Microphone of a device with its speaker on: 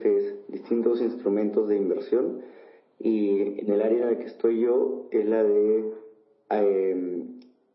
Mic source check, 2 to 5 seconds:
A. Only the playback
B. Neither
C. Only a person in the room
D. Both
A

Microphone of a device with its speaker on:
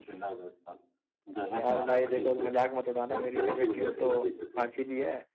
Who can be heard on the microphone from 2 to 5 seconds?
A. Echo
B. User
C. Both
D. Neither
C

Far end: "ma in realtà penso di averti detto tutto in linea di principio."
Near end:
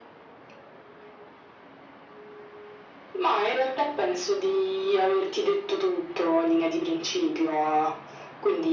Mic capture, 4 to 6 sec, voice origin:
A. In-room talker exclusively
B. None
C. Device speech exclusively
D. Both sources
C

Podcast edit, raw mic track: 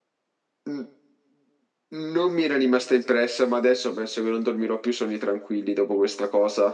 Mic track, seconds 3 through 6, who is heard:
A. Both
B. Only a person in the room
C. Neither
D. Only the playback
D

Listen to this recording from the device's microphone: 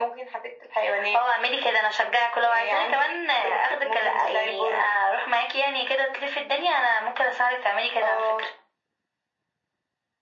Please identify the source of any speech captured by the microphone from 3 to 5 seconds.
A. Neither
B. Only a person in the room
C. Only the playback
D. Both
C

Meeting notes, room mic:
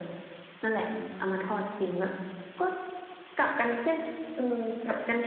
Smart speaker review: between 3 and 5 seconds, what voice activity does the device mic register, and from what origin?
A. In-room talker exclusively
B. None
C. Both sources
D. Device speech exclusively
D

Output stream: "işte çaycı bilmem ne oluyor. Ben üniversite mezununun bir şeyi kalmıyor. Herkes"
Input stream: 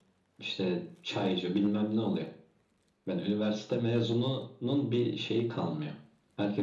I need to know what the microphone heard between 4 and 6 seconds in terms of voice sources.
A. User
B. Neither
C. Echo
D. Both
C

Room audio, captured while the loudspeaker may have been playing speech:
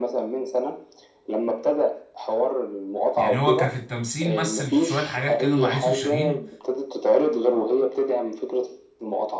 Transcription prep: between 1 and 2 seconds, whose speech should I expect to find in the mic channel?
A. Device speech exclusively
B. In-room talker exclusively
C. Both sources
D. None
A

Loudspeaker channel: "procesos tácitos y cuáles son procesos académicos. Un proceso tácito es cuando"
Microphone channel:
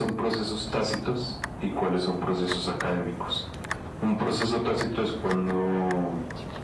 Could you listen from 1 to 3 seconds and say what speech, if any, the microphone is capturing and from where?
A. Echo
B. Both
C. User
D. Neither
A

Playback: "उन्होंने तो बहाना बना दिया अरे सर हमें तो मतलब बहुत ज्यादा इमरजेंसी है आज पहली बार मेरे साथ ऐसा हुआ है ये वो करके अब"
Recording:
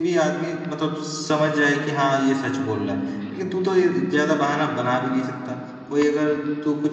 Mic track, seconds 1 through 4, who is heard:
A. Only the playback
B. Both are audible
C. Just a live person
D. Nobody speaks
C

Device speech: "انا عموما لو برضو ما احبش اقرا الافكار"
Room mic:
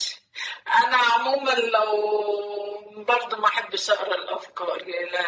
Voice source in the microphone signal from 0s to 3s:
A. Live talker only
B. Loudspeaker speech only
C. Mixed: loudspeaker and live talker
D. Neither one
B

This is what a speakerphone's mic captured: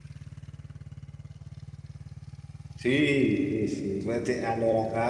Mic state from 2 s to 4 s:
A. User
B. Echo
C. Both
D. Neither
A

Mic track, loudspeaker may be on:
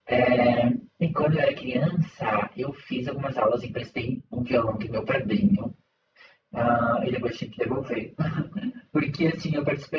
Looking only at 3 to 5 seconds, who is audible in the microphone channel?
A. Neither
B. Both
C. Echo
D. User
C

